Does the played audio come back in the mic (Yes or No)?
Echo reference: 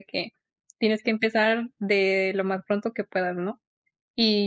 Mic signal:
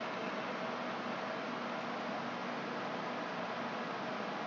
No